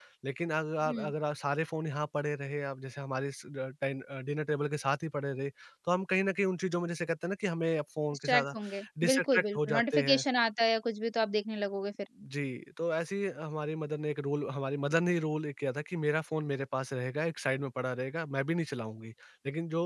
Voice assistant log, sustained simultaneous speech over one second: present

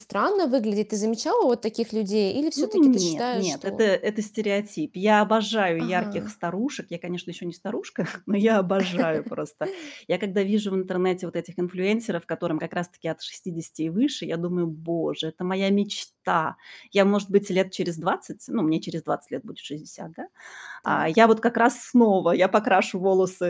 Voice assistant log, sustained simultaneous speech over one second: present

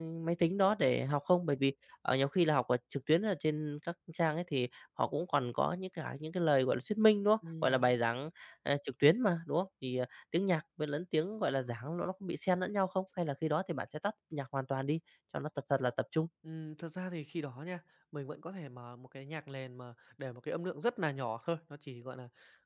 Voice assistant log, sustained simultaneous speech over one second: none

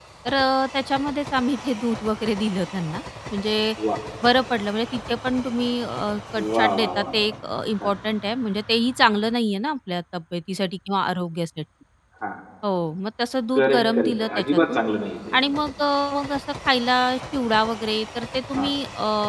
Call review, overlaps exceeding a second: present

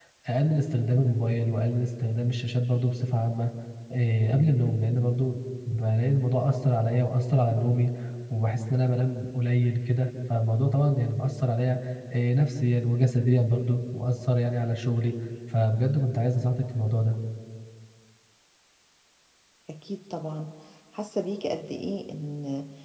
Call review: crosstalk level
none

